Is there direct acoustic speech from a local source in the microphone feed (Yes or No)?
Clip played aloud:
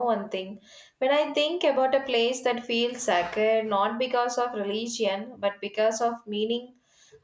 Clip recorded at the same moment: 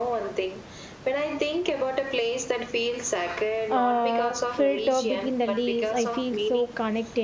Yes